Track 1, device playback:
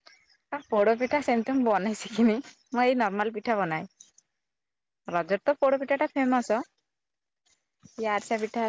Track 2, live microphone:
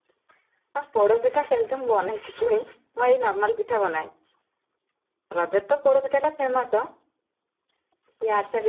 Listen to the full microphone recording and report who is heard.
echo only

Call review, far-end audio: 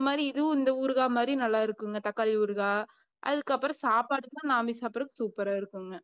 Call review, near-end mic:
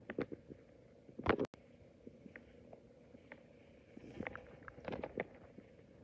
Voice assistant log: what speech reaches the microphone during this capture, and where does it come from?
neither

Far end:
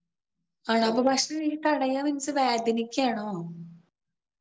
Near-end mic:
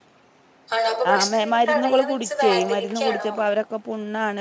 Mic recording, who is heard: both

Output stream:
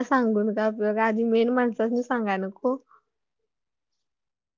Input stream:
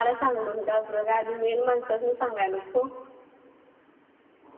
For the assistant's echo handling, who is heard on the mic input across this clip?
echo only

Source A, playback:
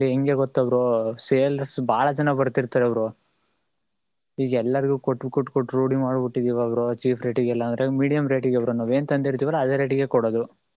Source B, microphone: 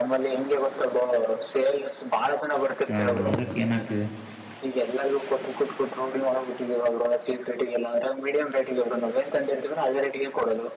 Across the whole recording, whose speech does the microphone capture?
both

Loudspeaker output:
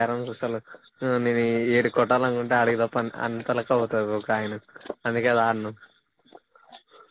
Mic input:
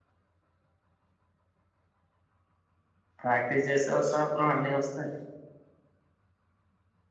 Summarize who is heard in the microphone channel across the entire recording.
user only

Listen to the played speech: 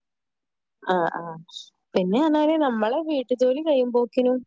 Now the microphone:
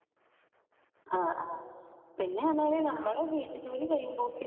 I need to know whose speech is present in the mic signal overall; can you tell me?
echo only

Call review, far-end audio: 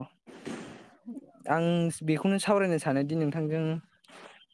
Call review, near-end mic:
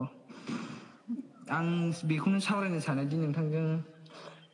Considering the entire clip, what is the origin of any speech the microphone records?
echo only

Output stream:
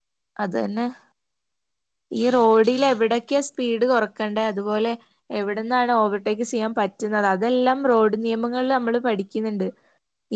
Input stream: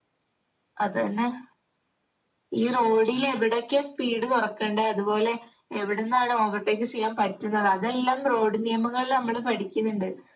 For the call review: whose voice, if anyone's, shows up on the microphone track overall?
echo only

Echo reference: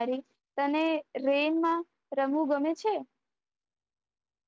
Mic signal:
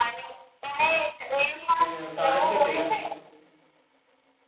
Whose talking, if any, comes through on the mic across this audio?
both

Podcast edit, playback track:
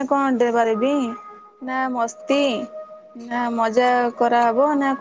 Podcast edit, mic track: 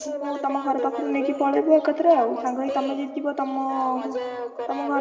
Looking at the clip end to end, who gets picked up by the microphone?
both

